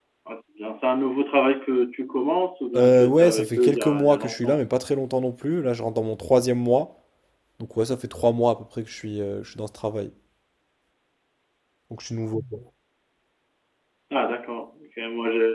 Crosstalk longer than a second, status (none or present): present